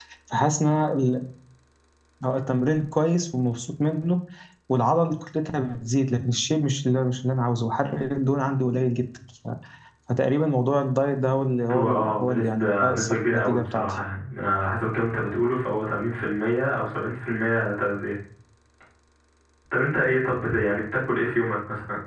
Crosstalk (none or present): present